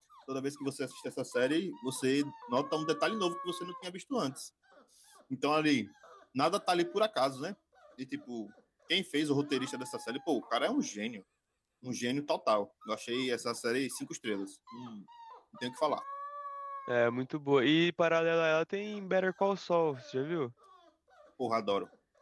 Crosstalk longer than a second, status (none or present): none